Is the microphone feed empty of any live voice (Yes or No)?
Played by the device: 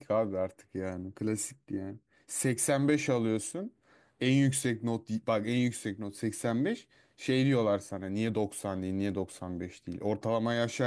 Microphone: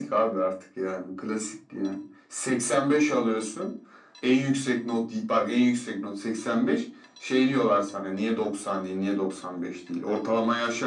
Yes